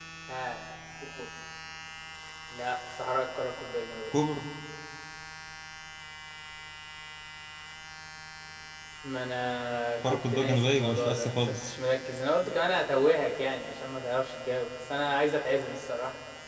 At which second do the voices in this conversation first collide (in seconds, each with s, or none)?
10.0 s